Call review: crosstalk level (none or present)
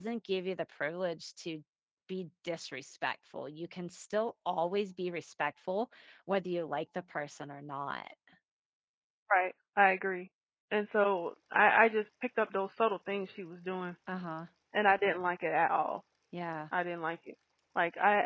none